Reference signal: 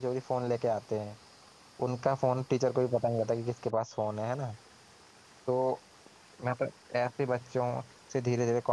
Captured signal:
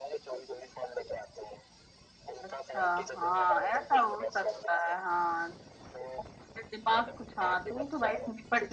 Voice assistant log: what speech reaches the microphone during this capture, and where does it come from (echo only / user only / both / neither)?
both